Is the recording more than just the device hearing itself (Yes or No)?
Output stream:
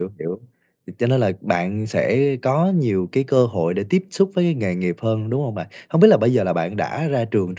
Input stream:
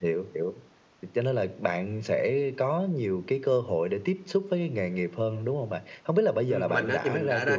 Yes